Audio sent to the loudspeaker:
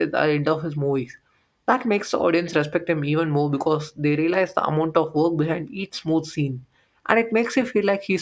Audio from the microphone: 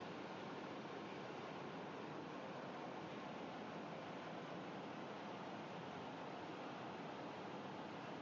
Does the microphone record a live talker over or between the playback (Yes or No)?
No